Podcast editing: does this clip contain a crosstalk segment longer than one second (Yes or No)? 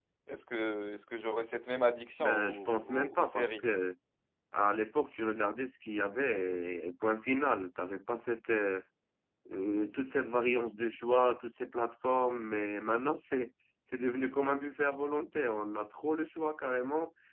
Yes